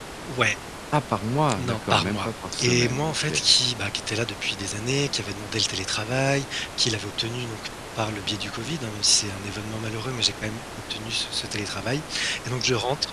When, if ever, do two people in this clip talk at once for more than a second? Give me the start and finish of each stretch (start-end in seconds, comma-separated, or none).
1.6-3.3